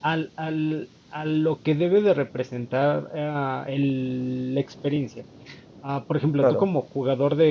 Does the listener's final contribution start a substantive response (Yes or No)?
No